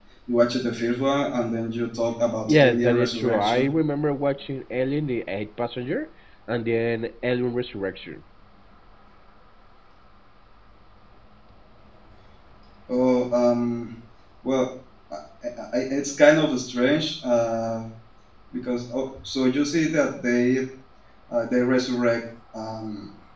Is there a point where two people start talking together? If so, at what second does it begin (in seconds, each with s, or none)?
2.5 s